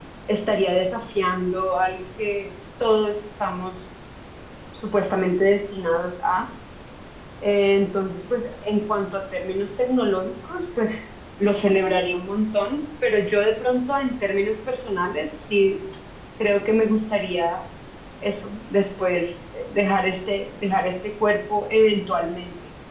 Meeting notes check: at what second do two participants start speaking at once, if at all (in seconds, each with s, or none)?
none